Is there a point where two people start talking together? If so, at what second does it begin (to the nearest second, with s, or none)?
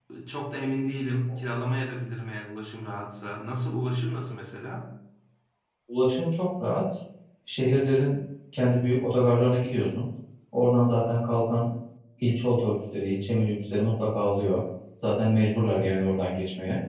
none